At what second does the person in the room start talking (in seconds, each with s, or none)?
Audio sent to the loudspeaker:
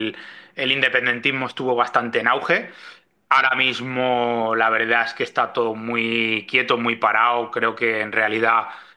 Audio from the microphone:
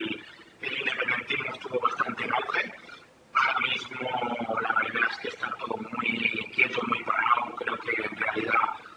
none